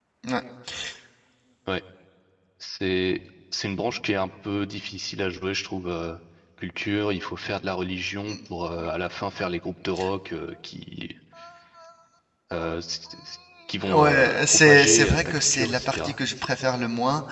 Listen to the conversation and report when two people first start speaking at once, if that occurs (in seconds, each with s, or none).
13.8 s